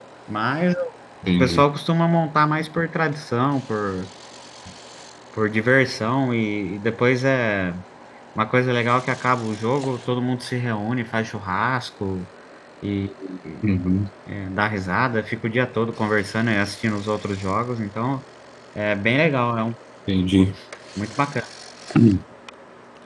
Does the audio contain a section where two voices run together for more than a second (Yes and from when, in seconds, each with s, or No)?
No